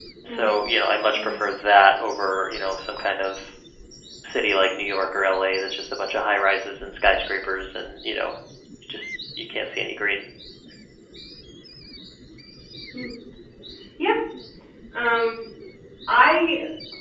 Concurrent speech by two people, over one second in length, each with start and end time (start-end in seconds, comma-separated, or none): none